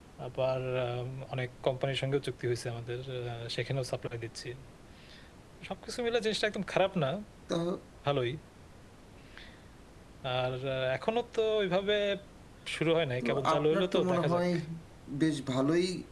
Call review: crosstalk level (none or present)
present